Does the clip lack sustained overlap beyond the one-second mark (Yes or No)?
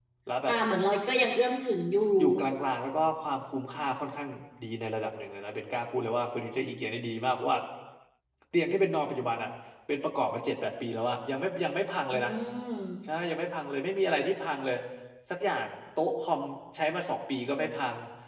Yes